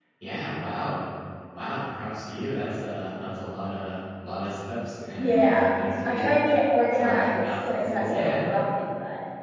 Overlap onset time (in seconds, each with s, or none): 5.2 s